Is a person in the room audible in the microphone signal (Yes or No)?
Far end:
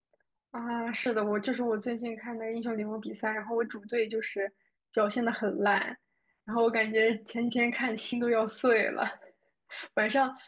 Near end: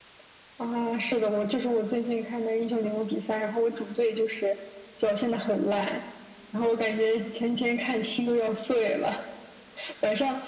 No